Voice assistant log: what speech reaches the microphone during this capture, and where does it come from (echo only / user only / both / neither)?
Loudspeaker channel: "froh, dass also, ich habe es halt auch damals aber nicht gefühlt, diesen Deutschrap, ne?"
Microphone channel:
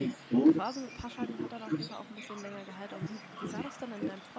both